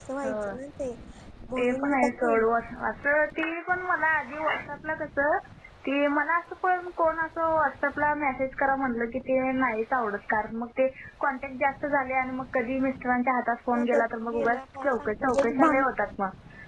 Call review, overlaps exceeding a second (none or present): present